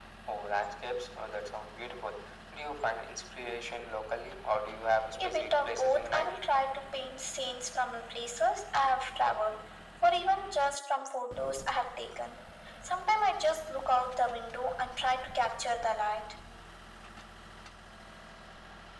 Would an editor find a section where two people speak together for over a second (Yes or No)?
Yes